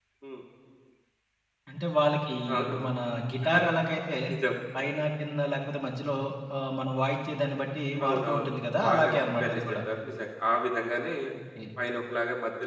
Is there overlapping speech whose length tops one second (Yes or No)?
Yes